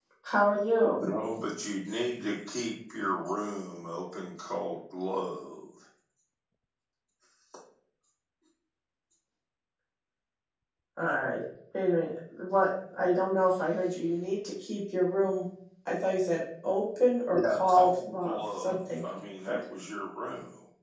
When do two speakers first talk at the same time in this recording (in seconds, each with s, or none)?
17.3 s